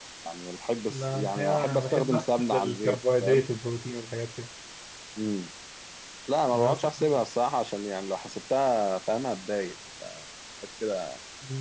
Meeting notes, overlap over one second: present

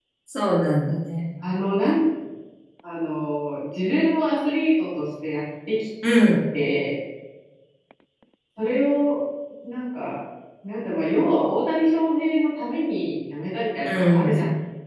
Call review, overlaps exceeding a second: none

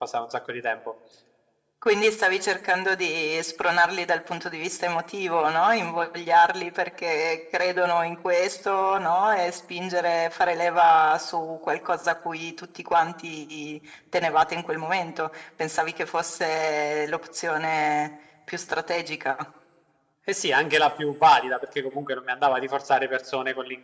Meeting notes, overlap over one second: none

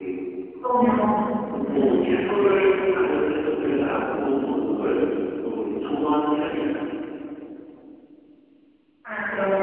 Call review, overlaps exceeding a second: none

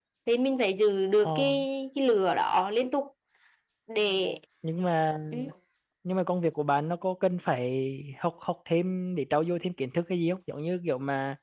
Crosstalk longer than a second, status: none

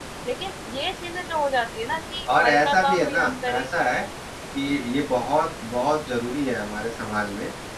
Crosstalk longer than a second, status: present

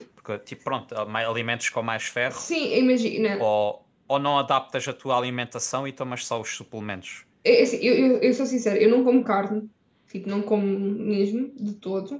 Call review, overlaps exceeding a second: none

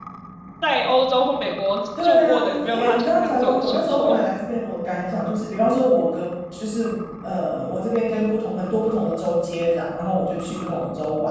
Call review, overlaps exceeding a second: present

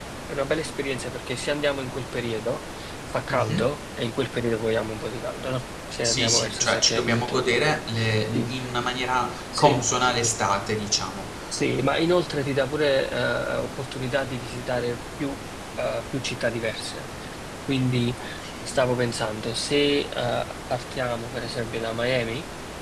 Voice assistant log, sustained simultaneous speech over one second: present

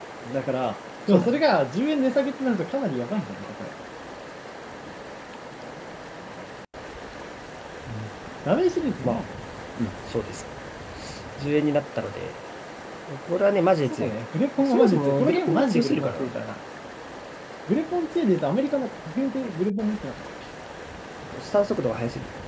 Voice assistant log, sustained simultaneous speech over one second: present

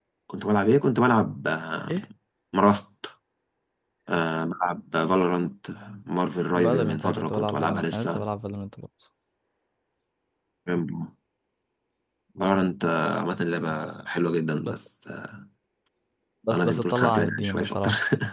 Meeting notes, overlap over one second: present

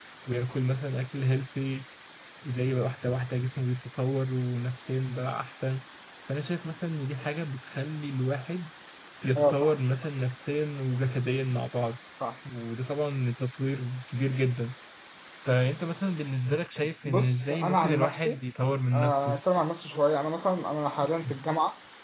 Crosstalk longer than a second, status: present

